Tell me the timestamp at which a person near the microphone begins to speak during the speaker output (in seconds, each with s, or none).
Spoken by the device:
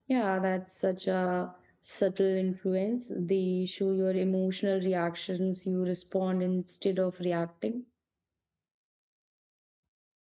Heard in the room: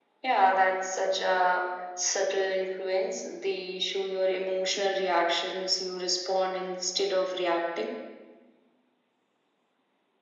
none